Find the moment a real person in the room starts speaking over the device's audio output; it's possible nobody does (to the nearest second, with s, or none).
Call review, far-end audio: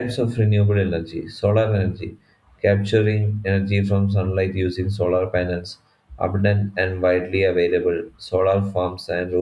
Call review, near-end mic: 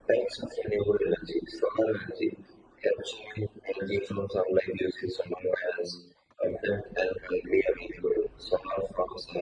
none